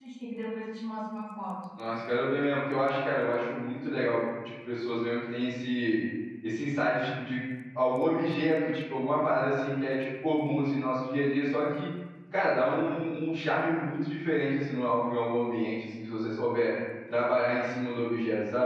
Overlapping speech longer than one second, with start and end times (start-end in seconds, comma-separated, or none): none